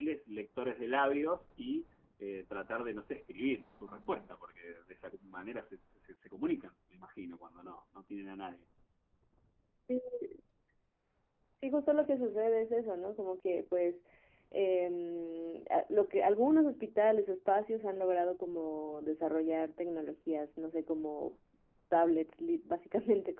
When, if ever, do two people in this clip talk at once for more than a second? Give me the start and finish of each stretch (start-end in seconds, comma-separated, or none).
none